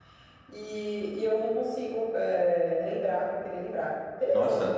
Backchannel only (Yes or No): No